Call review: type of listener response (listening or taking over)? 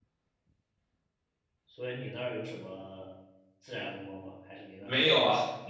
taking over